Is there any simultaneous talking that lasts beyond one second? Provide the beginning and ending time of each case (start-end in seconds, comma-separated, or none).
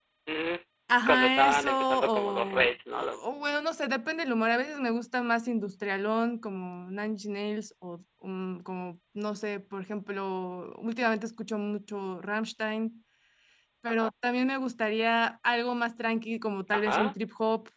1.1-3.2